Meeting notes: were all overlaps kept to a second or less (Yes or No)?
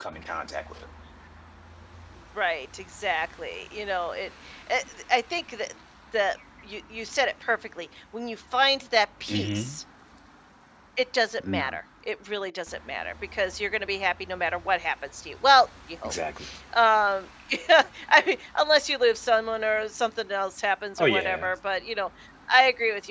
Yes